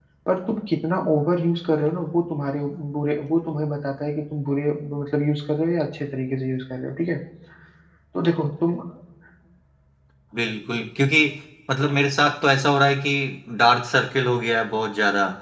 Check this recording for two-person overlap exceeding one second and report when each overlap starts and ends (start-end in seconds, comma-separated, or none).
none